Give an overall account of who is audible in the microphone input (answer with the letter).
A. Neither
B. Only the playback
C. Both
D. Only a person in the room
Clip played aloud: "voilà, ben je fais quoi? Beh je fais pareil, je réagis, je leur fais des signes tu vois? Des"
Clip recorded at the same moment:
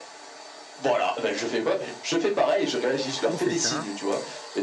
C